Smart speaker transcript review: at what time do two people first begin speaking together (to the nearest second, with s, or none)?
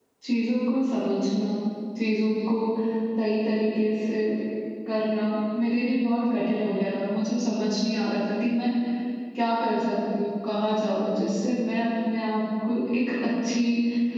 none